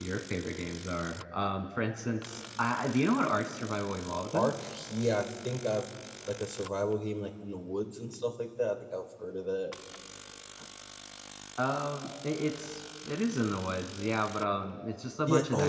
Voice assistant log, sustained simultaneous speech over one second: none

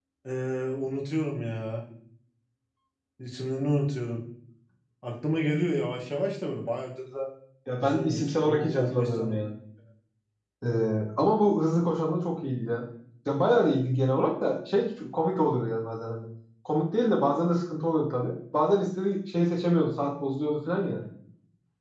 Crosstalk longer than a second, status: present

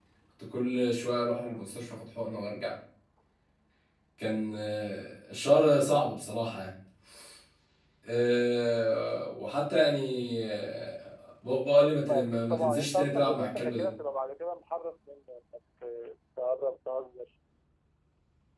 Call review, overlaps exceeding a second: present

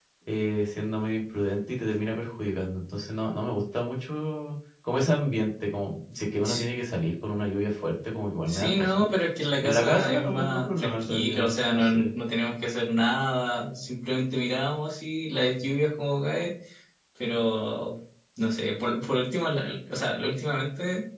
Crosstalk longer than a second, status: present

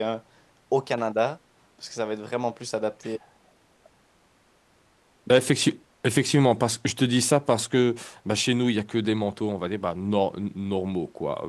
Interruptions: none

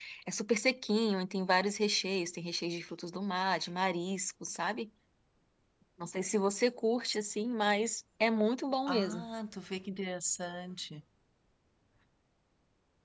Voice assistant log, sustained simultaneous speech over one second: none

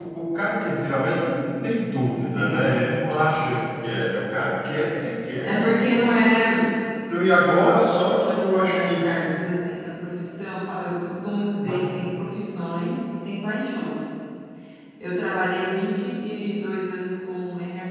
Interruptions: present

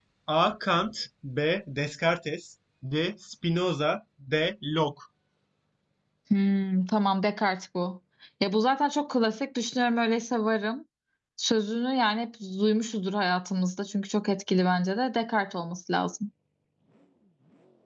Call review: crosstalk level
none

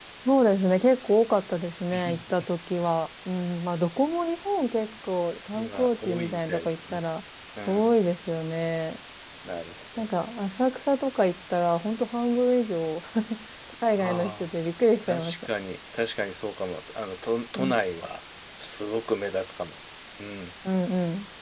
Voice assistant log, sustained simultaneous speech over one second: present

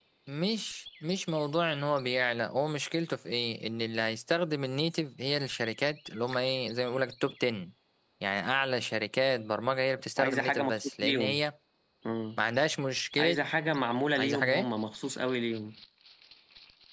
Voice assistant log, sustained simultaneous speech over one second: present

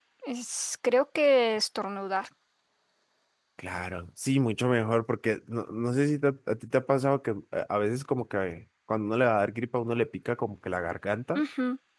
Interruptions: none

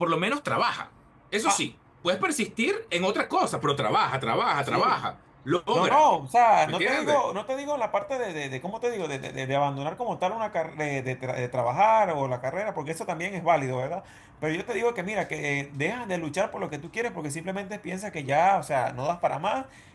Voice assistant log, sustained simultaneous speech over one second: none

